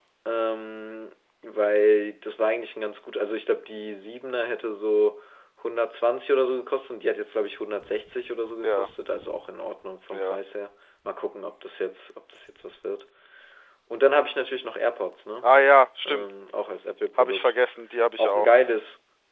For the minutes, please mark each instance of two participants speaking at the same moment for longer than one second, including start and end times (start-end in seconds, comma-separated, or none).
none